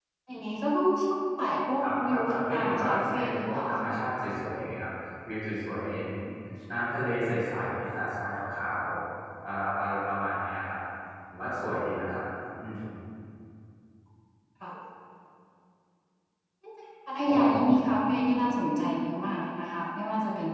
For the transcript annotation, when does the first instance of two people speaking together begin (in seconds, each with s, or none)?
1.8 s